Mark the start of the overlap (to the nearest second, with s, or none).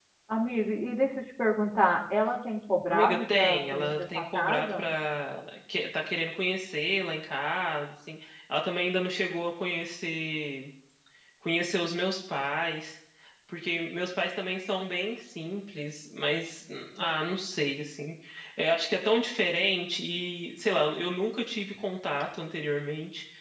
3 s